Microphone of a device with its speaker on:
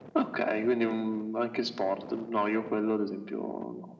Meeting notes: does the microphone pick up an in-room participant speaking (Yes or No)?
No